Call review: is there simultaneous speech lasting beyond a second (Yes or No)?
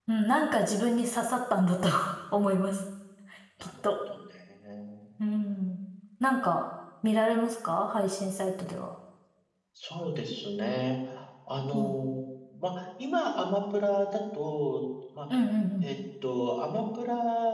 No